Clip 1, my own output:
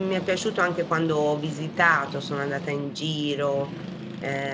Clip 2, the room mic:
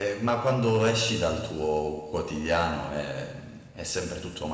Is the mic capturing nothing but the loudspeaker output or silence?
No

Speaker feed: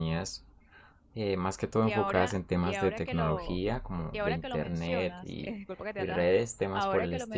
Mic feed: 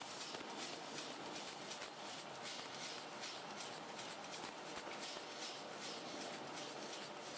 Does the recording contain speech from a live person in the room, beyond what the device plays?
No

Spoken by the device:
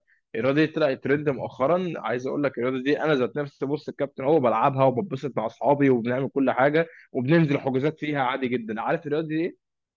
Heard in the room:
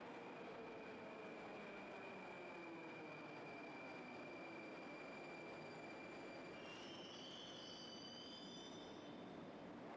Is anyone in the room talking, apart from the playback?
No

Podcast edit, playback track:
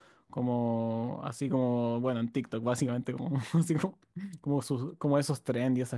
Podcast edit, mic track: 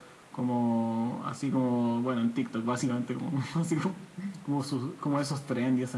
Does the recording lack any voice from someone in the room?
Yes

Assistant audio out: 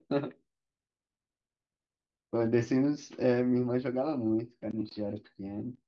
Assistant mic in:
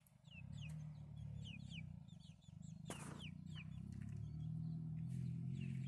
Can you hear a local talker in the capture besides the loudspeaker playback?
No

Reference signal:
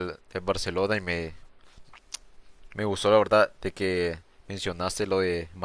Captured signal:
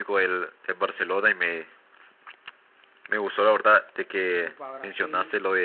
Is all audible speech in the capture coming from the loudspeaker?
No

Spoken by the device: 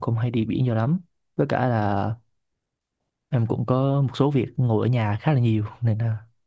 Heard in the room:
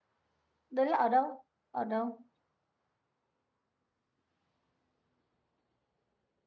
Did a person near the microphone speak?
Yes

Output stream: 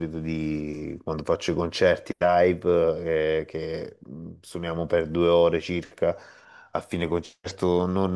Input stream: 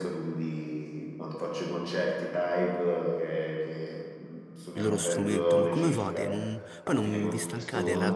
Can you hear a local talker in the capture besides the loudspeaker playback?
Yes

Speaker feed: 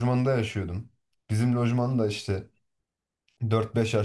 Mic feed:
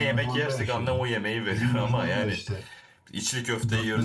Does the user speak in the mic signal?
Yes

